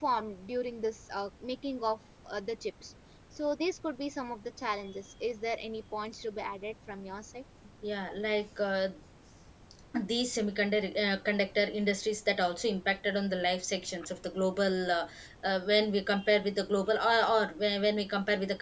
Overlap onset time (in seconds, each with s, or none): none